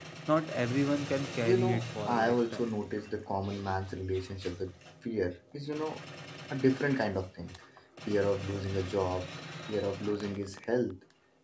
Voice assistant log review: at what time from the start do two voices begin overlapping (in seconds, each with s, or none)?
1.4 s